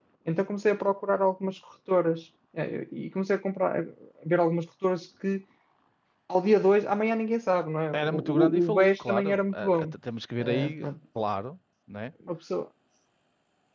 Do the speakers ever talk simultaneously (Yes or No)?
Yes